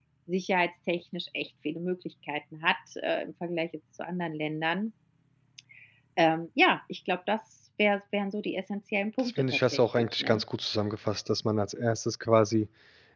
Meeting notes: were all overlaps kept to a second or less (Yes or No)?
No